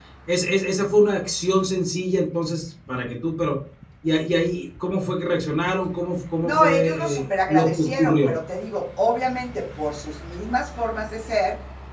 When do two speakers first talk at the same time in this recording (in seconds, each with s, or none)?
6.4 s